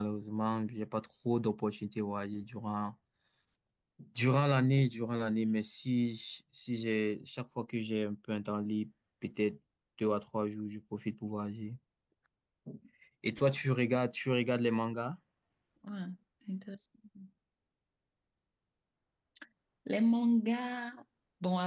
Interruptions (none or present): none